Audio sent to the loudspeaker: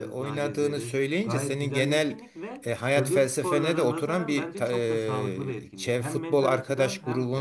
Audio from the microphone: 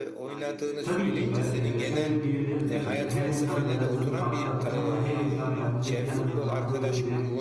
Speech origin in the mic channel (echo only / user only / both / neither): both